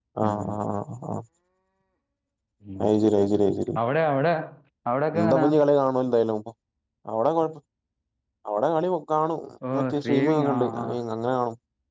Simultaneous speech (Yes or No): Yes